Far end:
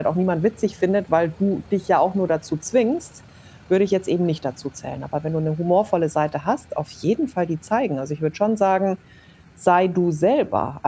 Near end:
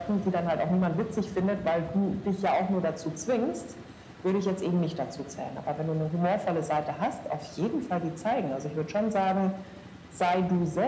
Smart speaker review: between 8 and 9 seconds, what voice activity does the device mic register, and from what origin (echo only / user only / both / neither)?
echo only